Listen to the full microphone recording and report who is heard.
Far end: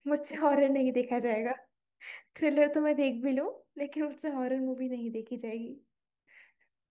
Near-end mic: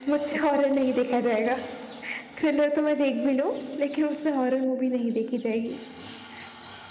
echo only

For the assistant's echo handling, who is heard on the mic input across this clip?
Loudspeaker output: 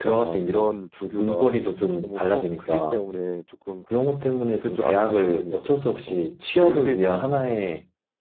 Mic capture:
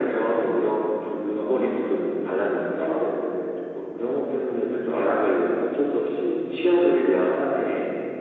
echo only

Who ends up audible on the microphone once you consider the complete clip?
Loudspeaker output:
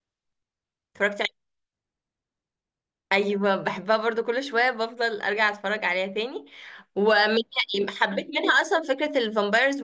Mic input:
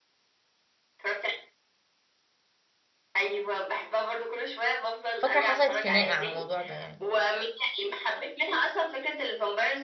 both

